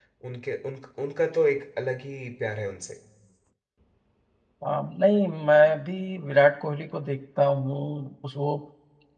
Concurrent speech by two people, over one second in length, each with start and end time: none

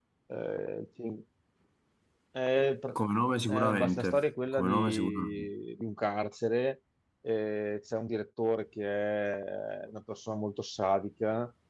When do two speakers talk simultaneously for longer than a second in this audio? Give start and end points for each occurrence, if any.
3.5-5.5

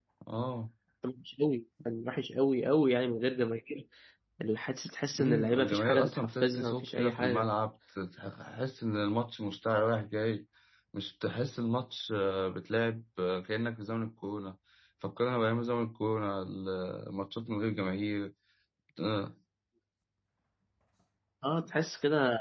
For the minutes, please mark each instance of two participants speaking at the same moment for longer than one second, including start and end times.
5.2-7.5

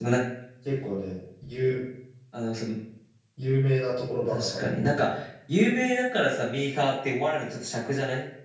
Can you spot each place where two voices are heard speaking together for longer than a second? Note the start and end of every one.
none

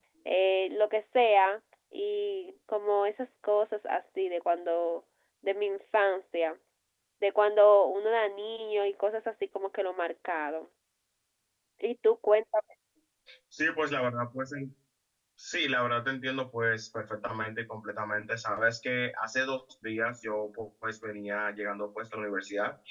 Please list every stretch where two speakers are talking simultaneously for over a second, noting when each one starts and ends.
none

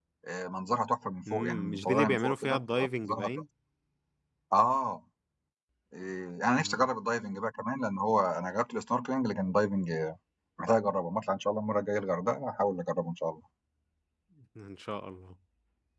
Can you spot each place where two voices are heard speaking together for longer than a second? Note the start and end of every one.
1.3-3.3

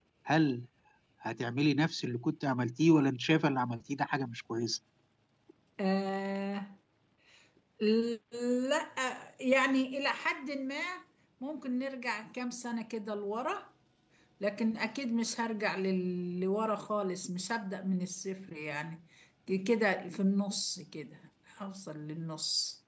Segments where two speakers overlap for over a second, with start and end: none

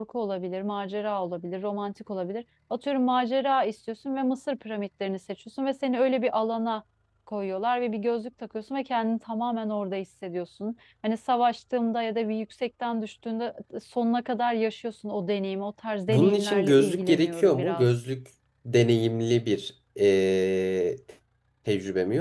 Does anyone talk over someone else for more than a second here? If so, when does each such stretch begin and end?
16.1-17.9

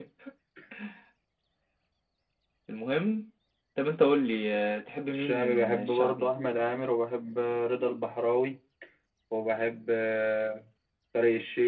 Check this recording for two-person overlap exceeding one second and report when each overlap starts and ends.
5.1-6.3

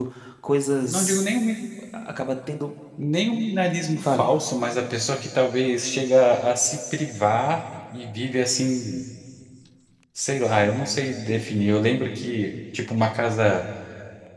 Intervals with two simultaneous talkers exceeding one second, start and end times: none

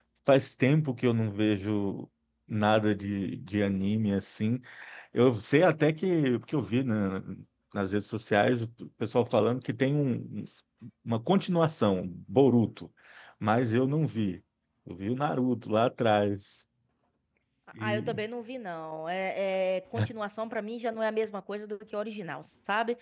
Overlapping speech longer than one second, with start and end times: none

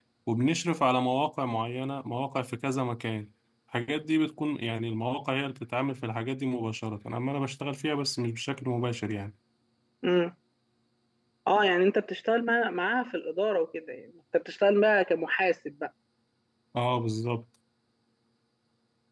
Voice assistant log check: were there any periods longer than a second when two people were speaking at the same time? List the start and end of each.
none

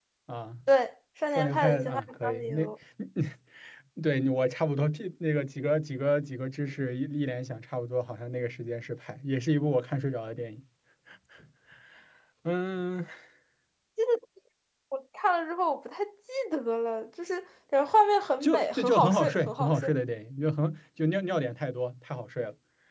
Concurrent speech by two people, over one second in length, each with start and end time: 1.3-2.6, 18.4-19.9

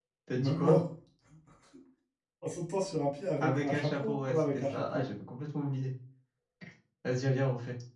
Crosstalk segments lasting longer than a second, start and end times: 3.4-5.1

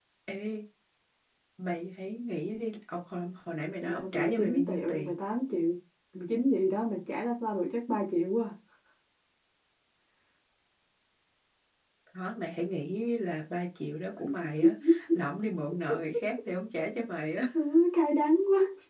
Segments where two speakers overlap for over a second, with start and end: 3.8-5.1

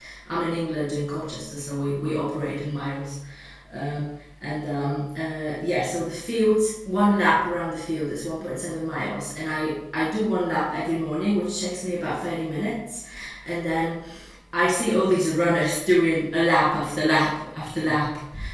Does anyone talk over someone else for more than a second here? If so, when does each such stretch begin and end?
none

